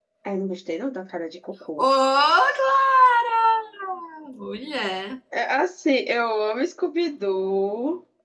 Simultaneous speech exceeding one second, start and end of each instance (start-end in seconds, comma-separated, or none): none